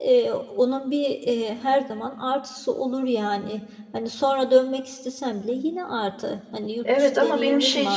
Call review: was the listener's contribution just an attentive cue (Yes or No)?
No